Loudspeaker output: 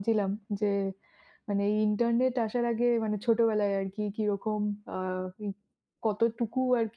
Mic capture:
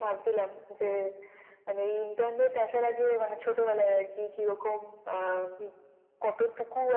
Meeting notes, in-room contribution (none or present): none